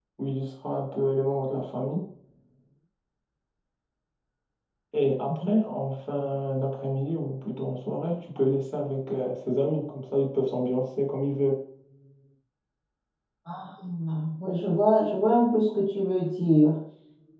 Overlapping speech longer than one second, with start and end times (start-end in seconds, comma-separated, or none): none